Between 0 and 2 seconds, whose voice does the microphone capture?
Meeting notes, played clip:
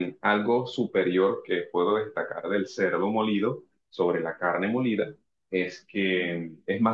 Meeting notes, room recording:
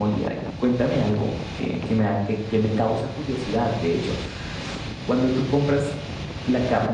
user only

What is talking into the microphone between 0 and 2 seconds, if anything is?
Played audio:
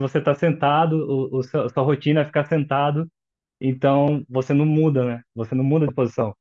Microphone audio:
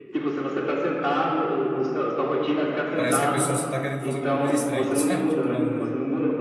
echo only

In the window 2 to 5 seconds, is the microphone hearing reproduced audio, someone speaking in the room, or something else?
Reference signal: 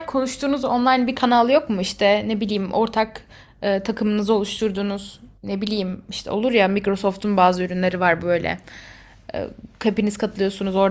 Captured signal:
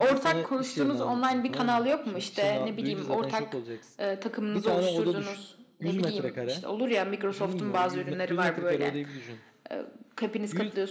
both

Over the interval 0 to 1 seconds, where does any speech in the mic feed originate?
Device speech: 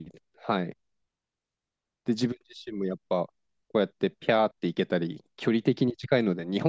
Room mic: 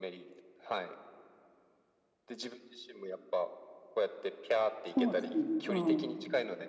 echo only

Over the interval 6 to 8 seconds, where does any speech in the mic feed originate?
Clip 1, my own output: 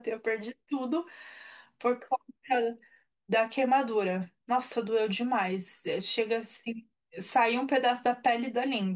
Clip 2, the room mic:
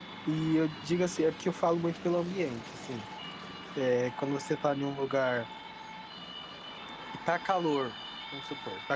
user only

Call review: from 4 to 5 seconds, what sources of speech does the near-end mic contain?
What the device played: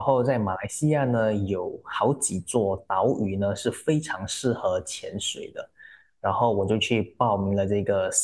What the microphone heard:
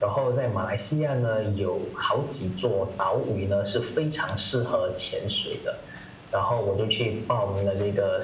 echo only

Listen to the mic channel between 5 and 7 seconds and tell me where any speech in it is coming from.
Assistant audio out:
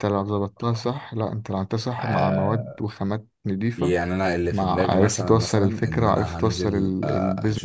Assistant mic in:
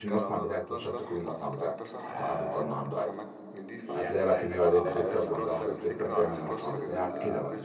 both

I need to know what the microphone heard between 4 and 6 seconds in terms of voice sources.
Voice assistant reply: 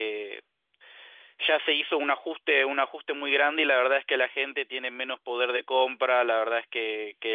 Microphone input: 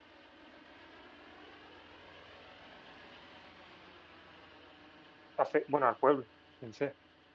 user only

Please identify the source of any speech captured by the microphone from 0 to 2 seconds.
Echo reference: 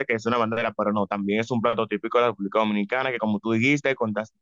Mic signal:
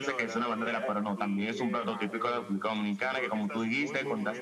both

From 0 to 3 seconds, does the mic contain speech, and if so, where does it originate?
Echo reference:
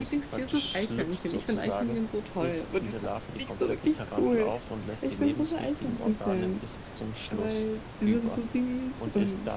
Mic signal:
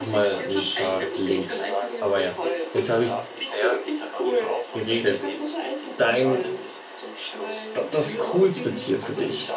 both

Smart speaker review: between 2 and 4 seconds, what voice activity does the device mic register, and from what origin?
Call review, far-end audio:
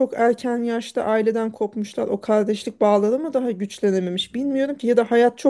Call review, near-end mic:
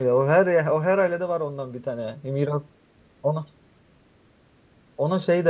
user only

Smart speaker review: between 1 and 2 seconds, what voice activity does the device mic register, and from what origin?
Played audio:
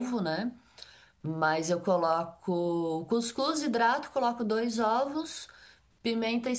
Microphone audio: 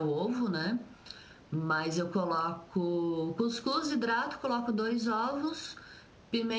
echo only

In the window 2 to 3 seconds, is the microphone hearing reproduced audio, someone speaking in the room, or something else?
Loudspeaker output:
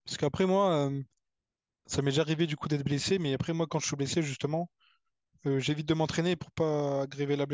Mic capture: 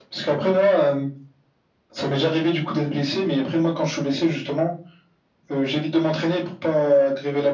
echo only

